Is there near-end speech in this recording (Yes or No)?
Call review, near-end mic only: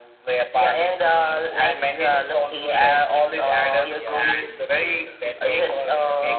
Yes